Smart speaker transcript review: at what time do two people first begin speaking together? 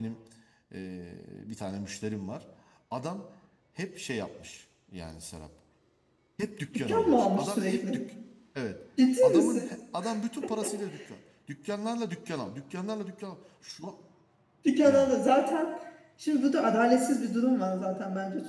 6.8 s

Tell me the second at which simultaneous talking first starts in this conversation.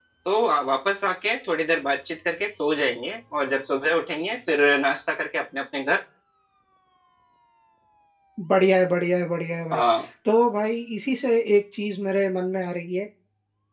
none

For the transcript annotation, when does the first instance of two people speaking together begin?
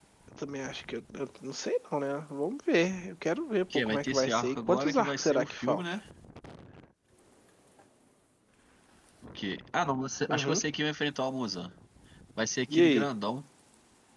3.7 s

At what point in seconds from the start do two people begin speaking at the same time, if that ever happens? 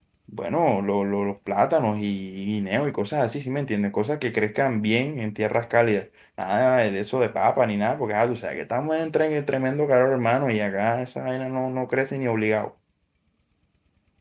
none

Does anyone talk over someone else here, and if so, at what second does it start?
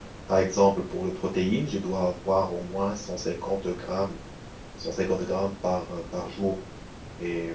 none

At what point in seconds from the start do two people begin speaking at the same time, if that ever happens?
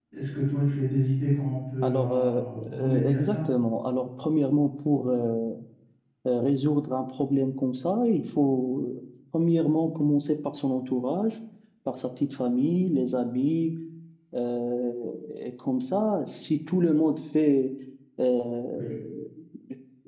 1.8 s

